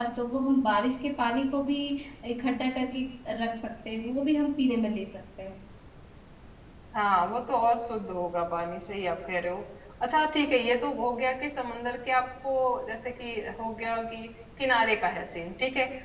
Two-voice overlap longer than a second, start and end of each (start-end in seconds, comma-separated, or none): none